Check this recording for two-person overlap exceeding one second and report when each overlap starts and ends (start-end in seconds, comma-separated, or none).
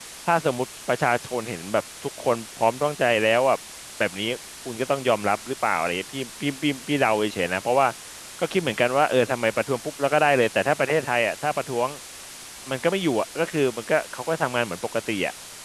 none